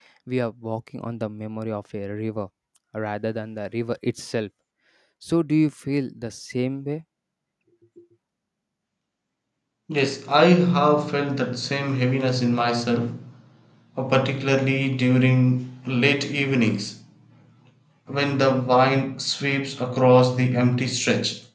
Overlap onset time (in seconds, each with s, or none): none